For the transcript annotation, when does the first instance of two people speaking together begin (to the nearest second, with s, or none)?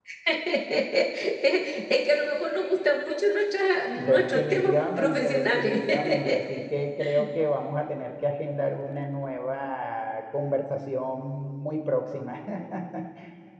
4 s